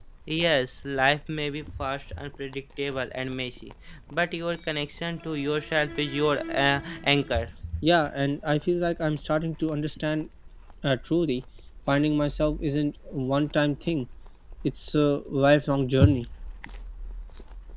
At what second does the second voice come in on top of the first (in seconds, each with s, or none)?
none